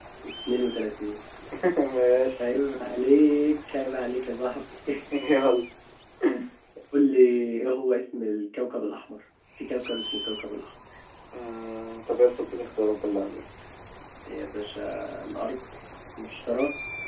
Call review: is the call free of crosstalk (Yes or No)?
Yes